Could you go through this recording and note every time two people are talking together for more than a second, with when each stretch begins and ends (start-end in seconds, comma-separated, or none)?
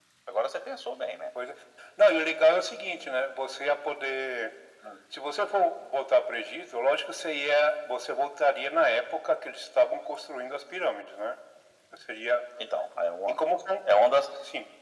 none